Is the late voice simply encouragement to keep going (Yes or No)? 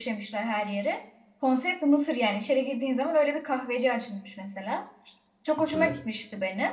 Yes